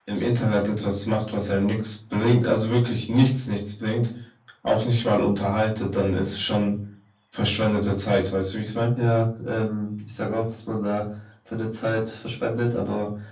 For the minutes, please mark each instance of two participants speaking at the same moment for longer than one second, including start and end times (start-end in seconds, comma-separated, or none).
none